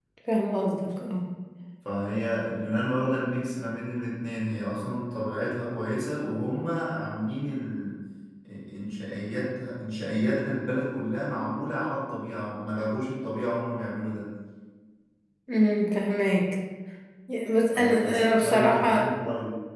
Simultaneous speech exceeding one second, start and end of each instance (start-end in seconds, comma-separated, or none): 17.7-19.1